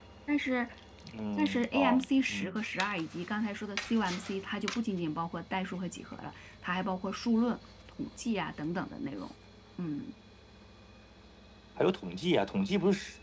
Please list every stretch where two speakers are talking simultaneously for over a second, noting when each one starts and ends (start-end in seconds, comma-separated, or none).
1.4-2.6